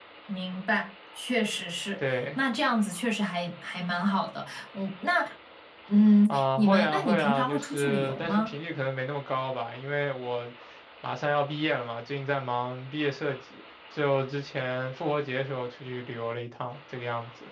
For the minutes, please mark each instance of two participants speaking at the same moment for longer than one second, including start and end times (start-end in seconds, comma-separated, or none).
6.3-8.5